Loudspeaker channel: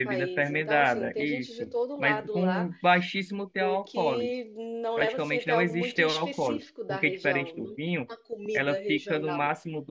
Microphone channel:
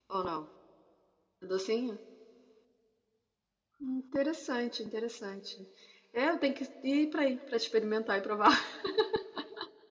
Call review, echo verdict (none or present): none